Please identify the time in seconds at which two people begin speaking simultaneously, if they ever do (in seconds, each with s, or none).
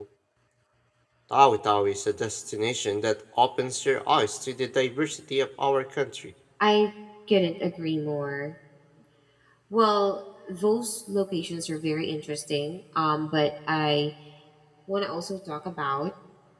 none